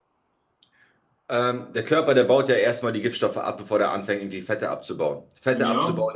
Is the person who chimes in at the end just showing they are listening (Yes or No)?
Yes